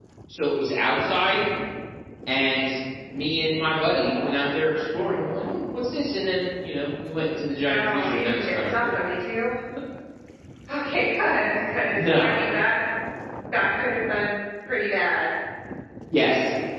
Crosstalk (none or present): present